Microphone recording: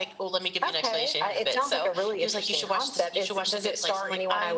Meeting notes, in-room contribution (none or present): none